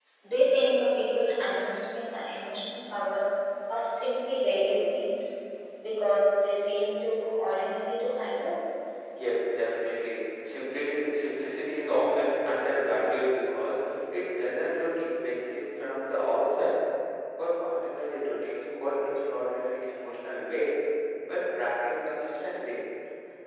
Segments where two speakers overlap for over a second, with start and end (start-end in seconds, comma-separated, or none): none